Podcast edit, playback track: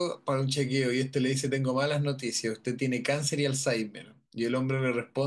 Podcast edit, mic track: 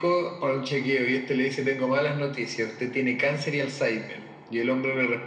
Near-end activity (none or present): none